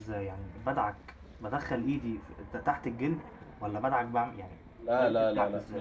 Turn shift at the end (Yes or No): Yes